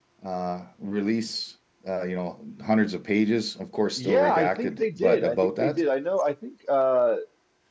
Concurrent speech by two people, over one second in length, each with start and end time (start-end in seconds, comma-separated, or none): 4.0-5.8